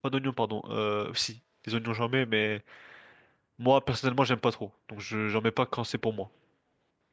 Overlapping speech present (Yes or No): No